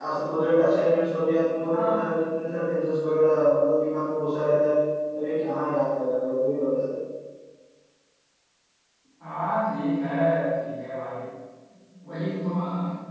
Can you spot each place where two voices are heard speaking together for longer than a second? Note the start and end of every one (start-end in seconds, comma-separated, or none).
none